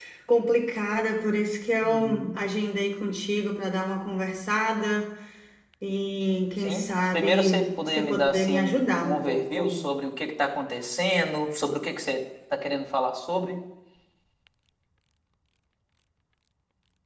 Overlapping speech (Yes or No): Yes